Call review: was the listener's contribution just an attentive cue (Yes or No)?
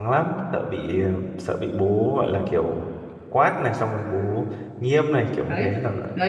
No